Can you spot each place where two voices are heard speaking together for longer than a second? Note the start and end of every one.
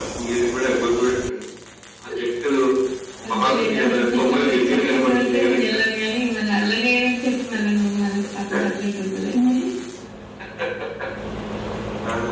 3.3-5.6

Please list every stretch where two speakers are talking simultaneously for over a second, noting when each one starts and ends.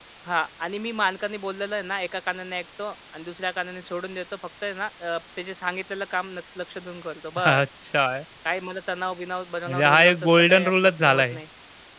9.7-11.4

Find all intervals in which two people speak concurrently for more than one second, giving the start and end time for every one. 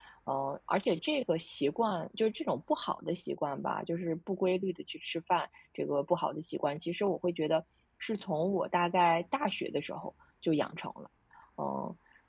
none

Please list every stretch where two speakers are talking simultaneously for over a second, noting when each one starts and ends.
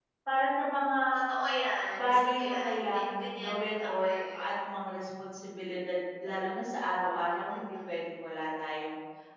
1.9-4.5

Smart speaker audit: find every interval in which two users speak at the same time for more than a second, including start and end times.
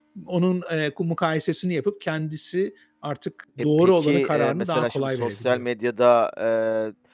3.8-5.6

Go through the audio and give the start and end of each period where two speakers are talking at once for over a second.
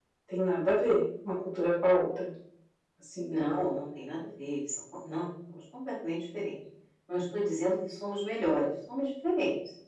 none

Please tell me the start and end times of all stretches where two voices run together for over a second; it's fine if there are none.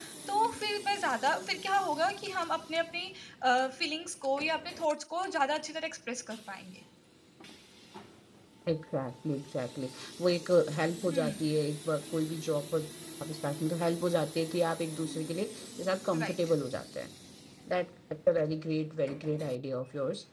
none

